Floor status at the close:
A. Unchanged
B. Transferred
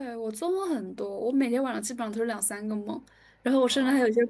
A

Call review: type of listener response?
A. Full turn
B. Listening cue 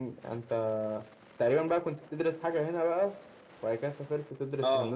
A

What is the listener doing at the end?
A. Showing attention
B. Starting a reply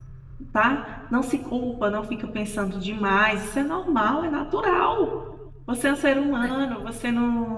A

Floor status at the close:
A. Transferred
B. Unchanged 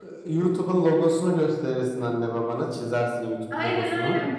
A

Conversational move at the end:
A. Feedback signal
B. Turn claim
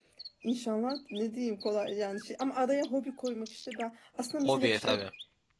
A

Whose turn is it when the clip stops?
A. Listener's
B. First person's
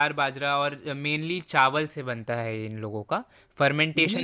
A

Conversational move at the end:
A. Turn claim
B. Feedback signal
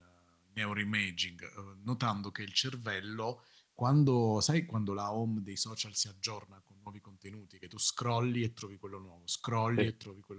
B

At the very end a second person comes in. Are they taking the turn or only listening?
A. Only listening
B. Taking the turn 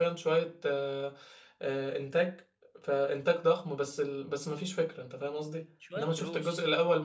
A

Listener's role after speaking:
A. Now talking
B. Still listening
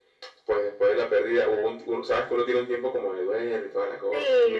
A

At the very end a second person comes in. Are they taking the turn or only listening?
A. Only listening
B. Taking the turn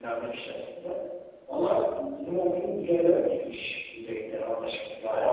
A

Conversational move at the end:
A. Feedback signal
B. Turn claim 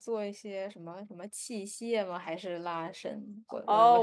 B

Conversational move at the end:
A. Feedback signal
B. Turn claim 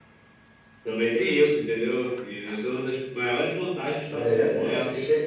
B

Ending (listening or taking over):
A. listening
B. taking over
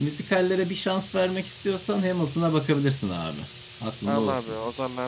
B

